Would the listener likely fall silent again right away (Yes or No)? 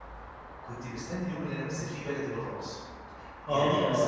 No